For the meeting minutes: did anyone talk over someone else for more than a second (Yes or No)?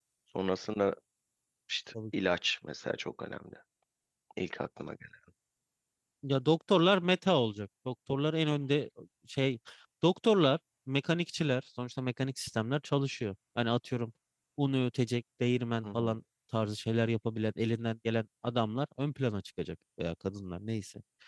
No